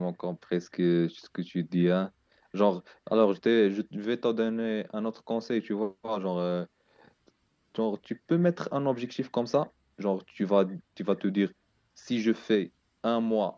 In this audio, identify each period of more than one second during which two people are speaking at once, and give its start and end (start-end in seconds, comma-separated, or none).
none